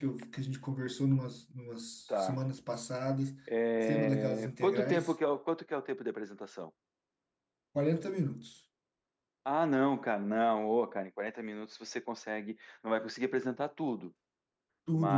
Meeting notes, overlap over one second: present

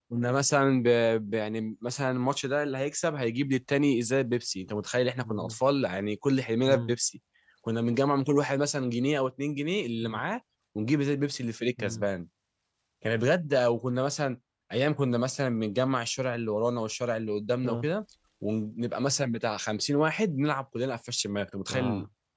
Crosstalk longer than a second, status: none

